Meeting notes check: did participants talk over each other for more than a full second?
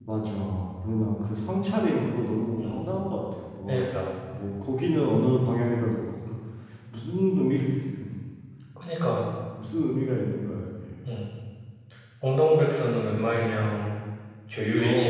No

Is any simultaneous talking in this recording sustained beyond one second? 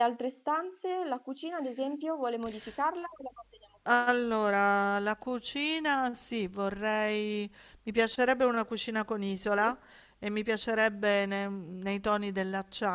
No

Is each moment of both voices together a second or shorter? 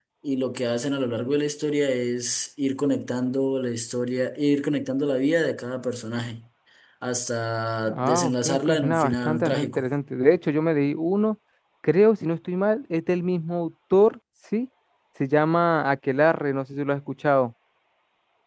No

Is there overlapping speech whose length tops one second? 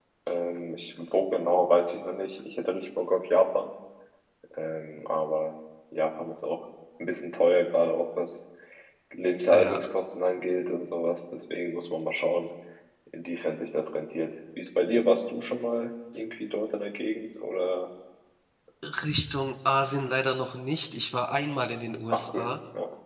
No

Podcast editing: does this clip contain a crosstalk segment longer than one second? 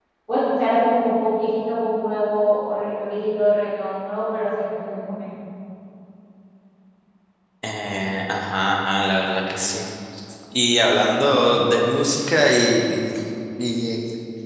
No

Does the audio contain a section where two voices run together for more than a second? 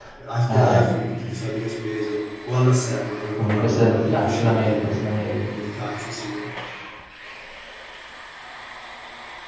Yes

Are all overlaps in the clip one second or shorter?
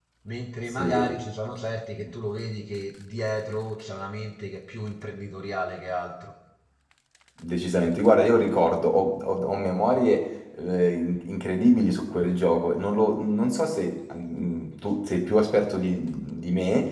Yes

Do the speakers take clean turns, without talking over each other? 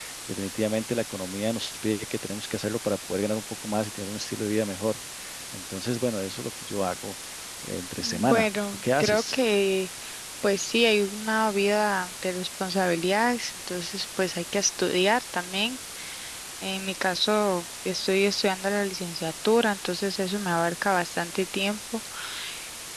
No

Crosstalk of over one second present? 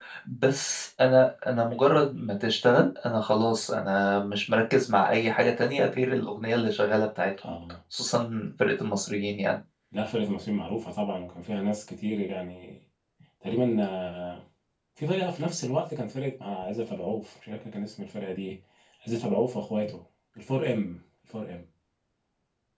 No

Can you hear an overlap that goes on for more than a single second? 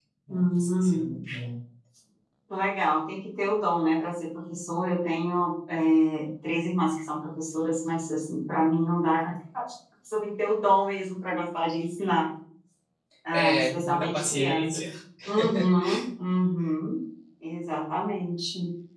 Yes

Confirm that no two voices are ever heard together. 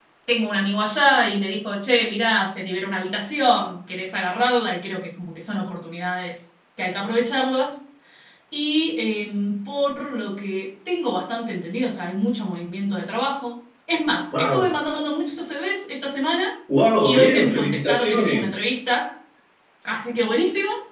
No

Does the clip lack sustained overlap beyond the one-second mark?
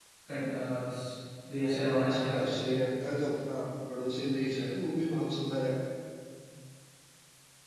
No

